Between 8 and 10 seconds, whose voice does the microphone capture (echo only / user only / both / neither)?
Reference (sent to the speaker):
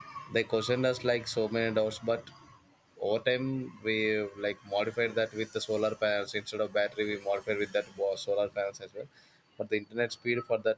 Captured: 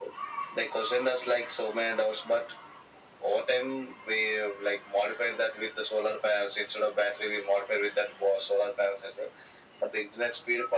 echo only